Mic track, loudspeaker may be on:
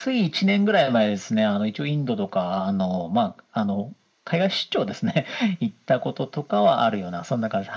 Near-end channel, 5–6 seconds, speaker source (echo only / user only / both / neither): echo only